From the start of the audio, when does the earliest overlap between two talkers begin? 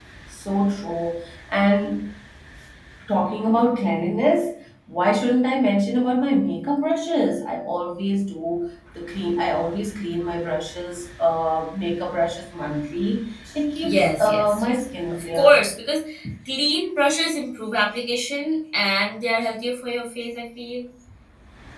14 s

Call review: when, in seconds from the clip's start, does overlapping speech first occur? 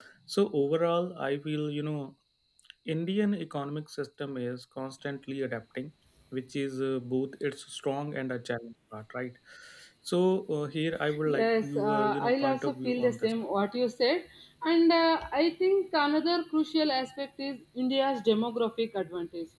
11 s

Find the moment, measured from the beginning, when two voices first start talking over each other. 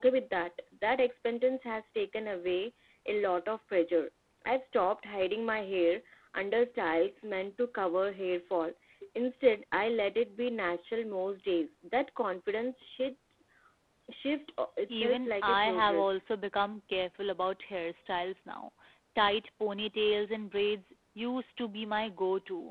15 s

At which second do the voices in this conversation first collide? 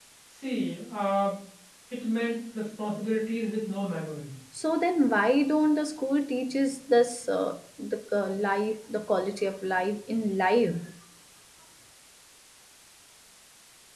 none

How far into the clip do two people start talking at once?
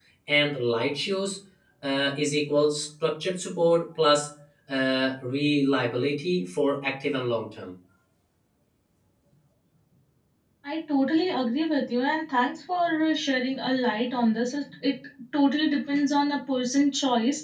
none

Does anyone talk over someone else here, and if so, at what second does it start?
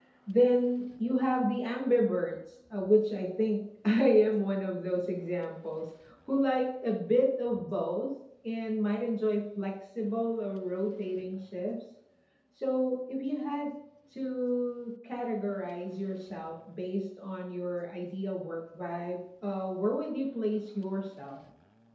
none

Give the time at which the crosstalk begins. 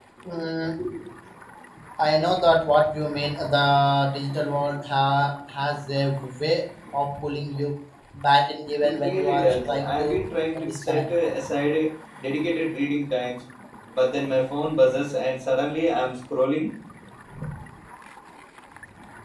9 s

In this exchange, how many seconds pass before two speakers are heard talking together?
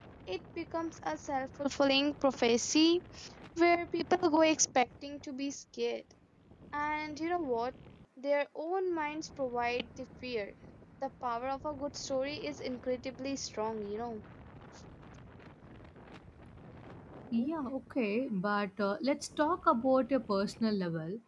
none

